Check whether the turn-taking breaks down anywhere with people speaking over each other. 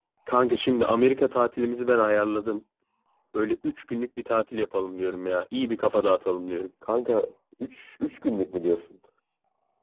No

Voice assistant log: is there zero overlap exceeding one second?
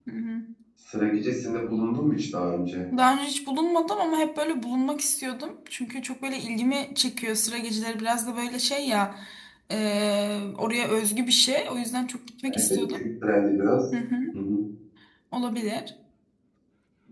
Yes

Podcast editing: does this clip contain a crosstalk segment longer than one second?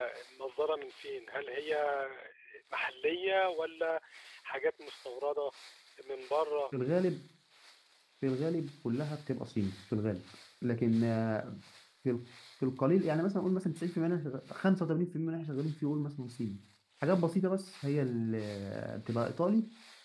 No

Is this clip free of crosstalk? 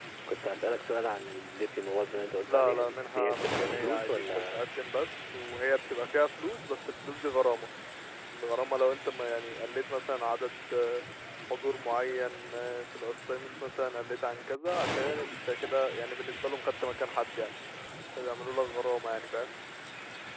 No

